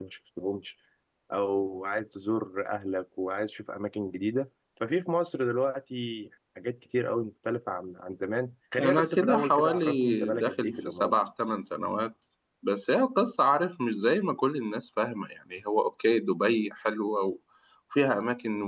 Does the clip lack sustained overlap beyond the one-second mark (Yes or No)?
No